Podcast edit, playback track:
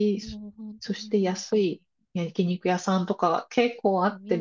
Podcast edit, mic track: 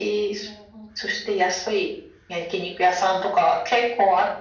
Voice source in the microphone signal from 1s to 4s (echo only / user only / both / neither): echo only